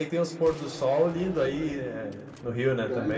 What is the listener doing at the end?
taking over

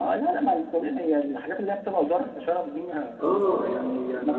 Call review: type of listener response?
taking over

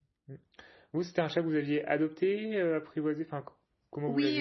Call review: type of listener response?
taking over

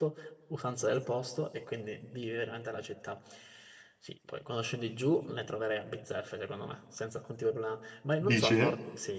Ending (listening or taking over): listening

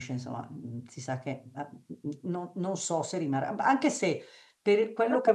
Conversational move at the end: listening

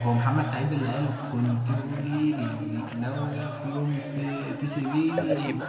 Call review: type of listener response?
taking over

